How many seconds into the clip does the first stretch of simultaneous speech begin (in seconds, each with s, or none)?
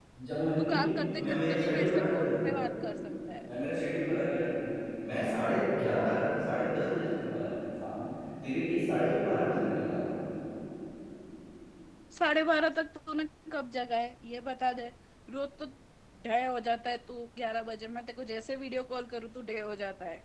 0.6 s